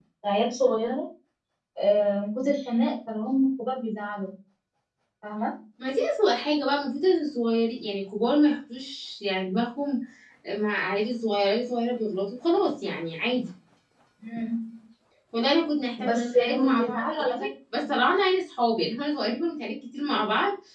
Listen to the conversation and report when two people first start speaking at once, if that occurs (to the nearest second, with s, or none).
16 s